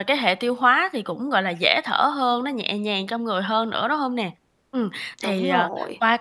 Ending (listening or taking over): listening